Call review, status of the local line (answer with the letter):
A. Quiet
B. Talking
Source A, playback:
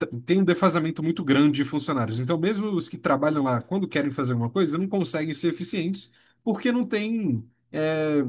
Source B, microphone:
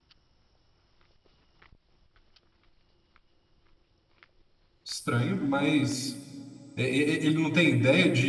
B